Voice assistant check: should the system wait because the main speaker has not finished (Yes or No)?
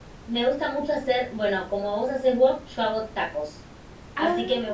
Yes